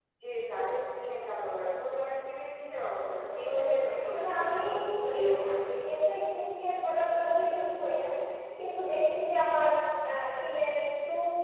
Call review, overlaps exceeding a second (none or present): present